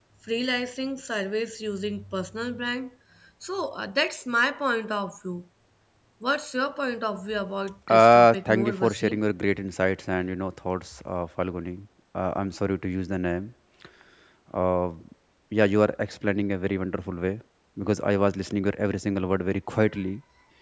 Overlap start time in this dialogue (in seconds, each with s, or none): 7.9 s